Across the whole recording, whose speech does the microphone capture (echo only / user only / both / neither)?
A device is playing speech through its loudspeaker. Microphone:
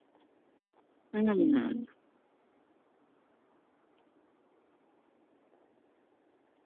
user only